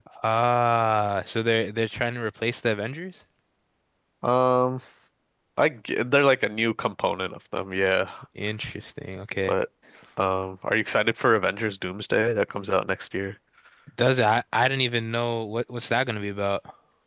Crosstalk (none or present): none